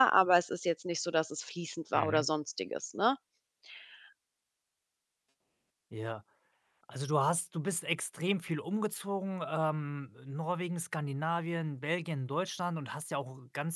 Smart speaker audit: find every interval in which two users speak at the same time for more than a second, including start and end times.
none

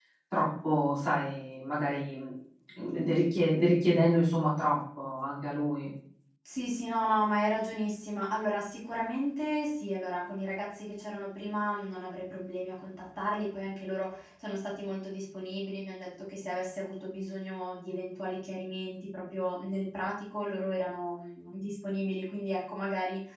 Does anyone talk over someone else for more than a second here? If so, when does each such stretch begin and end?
none

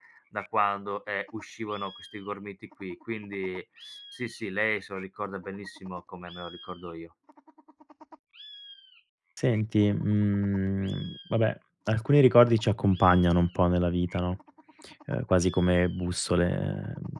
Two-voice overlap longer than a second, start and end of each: none

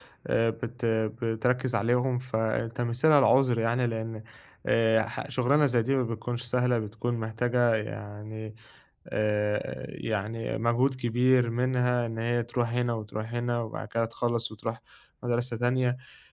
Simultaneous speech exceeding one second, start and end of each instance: none

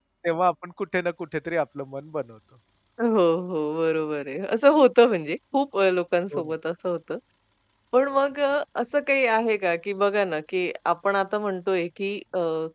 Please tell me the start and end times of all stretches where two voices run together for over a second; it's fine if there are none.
none

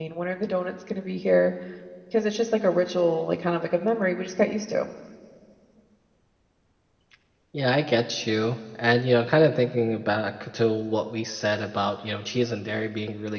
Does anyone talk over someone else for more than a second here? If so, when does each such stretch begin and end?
none

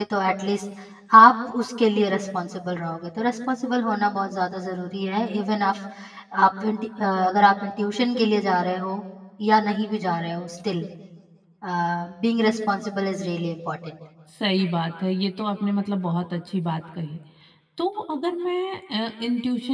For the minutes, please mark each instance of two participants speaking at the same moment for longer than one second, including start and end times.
none

